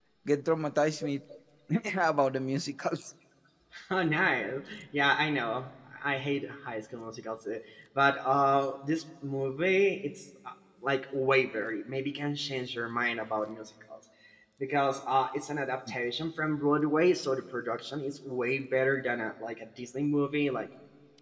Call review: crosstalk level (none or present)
none